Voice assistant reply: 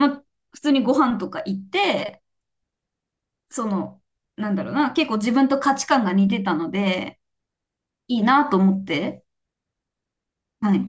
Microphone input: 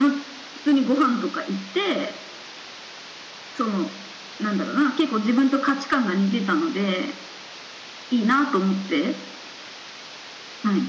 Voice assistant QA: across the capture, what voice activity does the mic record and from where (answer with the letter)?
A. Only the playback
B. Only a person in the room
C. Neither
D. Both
A